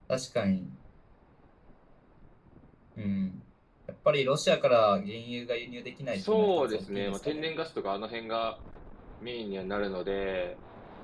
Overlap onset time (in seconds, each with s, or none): 6.1 s